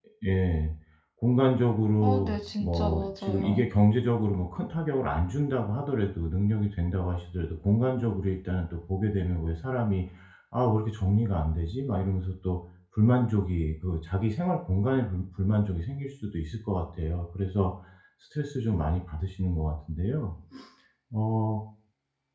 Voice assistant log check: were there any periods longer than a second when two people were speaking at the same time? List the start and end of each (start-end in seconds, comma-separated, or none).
2.0-3.6